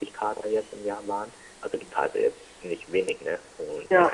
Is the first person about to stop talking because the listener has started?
No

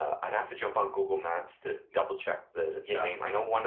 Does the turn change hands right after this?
No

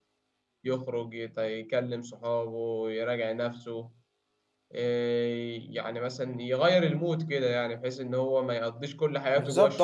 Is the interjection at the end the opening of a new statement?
Yes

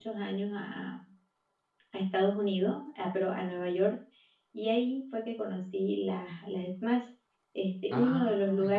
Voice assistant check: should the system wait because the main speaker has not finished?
Yes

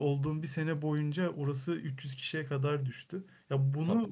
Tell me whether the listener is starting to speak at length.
No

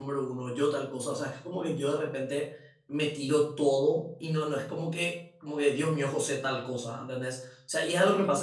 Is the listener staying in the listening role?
Yes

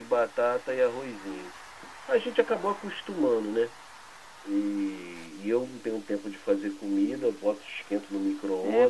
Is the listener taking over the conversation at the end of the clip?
Yes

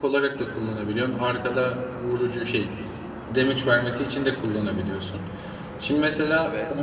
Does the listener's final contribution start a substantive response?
No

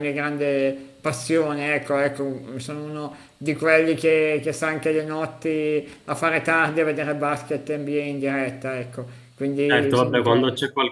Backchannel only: No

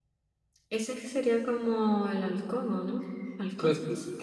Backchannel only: No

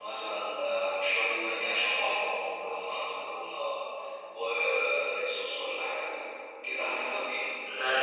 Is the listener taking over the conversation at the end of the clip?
No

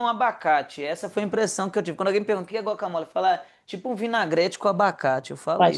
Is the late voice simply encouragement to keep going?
No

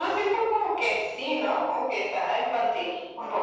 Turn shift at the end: Yes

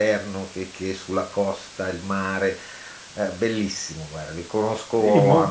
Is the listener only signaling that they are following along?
No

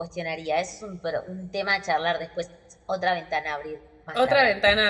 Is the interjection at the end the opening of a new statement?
Yes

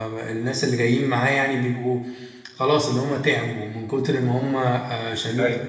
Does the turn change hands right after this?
No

